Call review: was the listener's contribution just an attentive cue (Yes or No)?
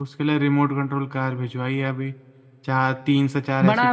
No